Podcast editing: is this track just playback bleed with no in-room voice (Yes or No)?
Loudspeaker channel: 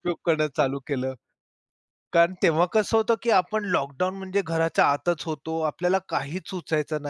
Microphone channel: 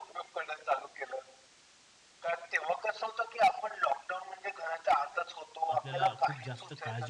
No